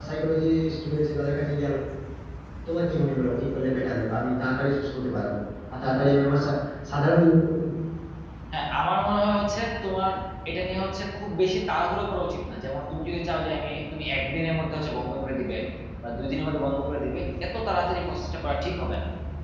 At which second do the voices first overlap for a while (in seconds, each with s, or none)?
none